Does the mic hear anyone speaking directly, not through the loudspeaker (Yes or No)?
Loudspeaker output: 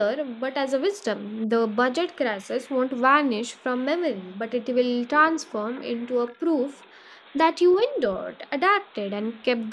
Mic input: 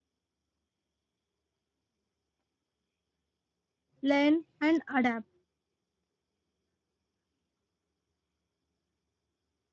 Yes